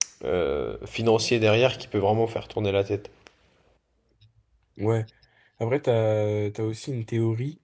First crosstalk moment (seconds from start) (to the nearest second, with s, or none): none